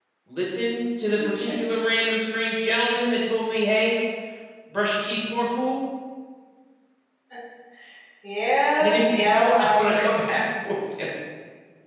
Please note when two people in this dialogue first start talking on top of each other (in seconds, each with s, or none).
8.8 s